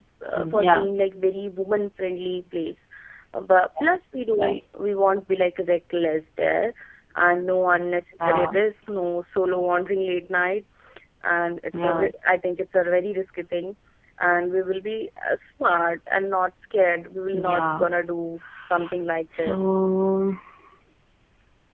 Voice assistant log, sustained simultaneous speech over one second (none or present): none